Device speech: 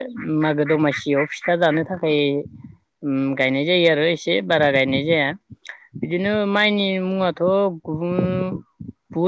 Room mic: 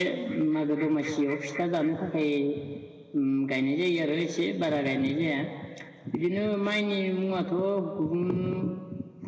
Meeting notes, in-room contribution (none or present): none